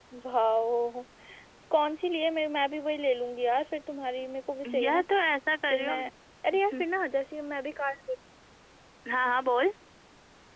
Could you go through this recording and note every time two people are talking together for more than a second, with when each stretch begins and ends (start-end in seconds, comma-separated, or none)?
none